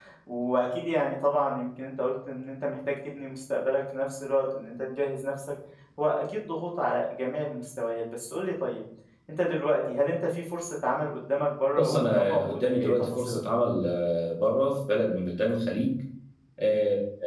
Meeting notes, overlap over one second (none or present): present